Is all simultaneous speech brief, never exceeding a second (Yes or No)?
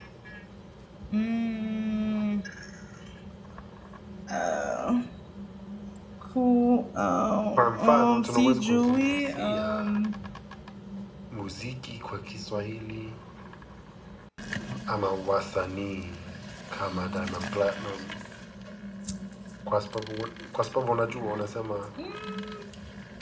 No